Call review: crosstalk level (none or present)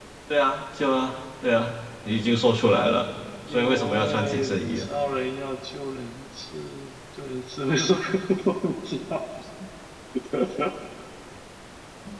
present